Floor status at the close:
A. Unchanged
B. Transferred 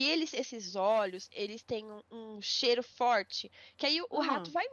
A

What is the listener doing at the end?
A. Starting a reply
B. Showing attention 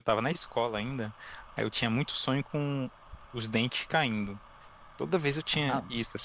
A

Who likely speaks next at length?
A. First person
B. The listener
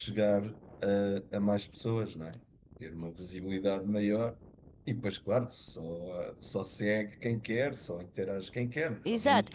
B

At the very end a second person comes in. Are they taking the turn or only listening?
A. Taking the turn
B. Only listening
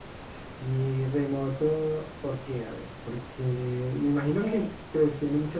B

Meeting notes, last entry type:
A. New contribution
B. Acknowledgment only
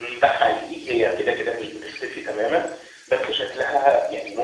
B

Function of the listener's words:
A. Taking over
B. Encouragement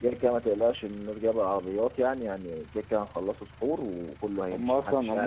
A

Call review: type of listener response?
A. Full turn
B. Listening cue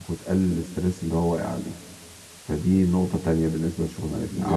A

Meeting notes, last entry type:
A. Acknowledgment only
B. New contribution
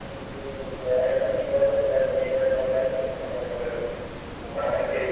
B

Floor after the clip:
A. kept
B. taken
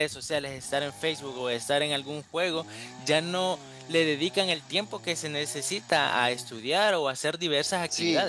B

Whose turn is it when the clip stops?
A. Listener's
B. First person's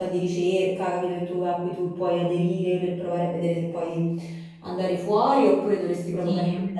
B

